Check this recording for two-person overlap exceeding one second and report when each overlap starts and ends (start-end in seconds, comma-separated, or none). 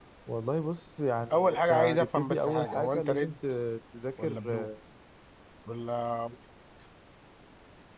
1.3-3.4